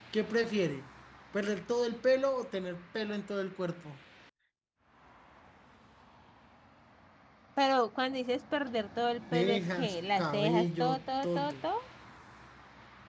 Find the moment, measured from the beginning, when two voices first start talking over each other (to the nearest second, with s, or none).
9 s